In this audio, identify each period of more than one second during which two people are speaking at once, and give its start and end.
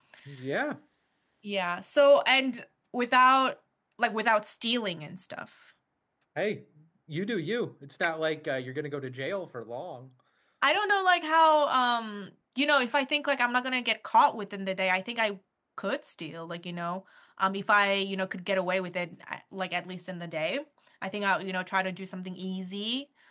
none

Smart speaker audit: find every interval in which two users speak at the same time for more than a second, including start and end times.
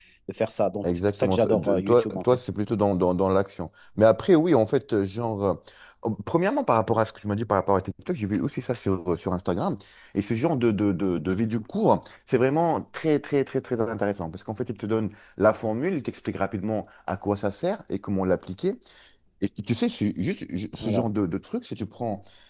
0.8-2.2

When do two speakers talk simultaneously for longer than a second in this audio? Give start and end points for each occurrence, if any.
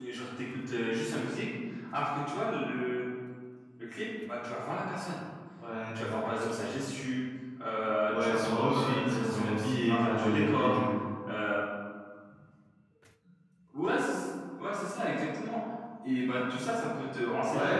8.1-10.8

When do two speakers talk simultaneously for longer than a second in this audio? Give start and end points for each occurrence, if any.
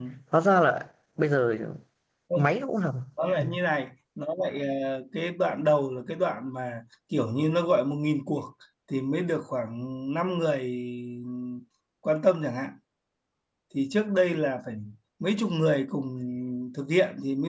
none

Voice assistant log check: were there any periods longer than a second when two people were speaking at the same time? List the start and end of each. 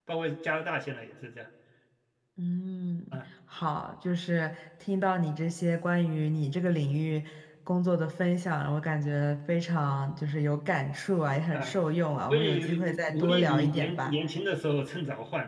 12.3-14.2

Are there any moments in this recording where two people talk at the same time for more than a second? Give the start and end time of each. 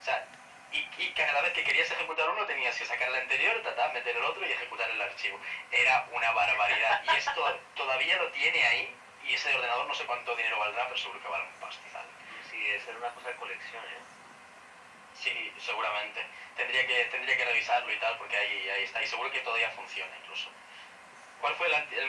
none

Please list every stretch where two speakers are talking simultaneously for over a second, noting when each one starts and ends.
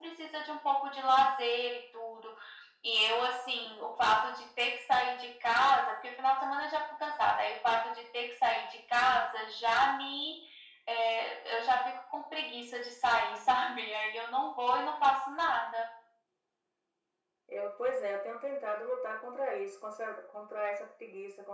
none

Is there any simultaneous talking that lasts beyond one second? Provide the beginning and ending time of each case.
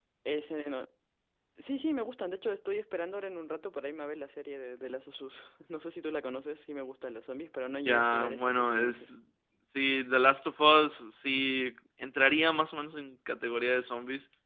7.9-9.1

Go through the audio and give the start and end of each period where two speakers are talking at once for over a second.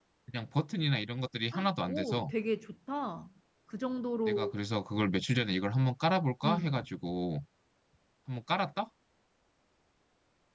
none

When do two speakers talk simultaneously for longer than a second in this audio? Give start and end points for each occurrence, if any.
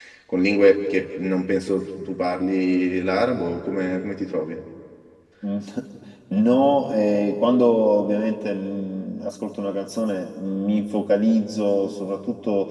none

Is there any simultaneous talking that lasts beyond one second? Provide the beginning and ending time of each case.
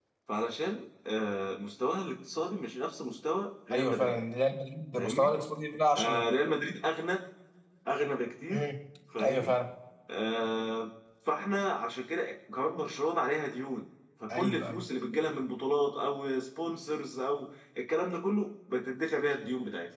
none

